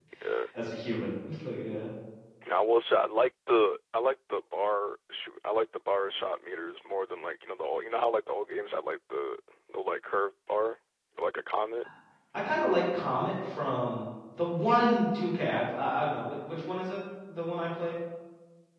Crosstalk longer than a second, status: none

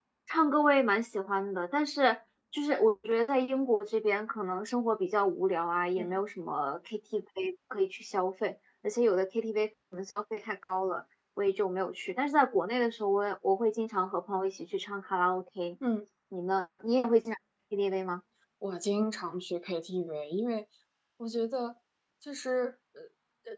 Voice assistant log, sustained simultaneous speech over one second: none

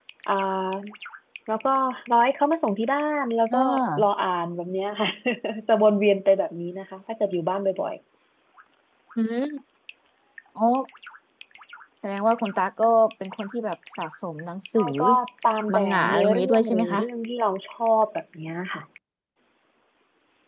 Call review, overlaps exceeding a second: present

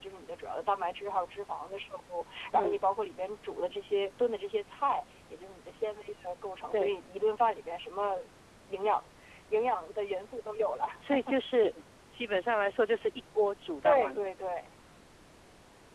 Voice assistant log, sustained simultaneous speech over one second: none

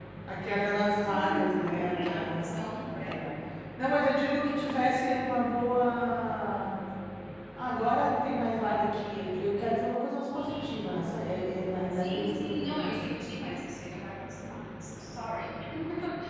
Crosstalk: present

